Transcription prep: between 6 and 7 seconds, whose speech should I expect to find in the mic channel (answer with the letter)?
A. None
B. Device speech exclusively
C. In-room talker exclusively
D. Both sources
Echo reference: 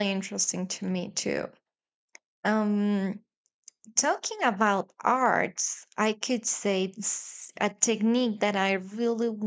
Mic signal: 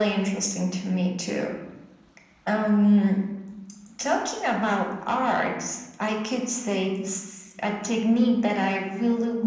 B